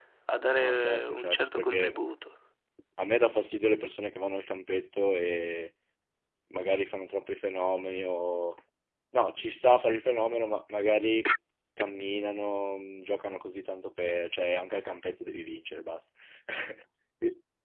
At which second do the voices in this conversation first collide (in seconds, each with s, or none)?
0.6 s